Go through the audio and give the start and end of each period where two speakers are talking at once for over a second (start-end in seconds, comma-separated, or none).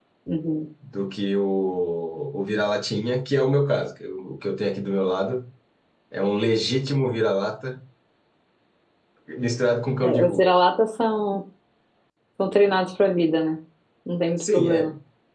none